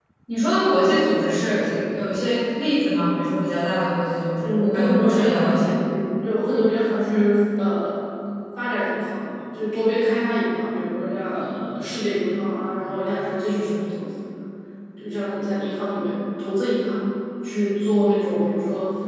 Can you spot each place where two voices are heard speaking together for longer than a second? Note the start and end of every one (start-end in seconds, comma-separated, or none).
4.4-5.7